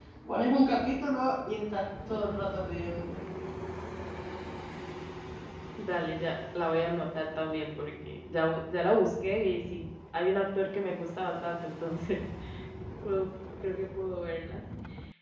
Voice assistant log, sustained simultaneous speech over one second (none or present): none